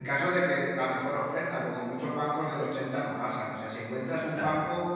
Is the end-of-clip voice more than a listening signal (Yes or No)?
No